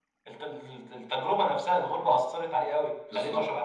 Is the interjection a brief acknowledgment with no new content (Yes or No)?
No